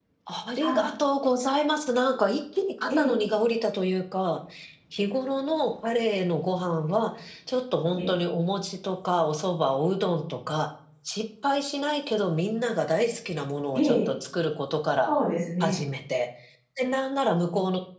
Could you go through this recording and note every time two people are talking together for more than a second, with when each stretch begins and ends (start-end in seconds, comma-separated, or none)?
none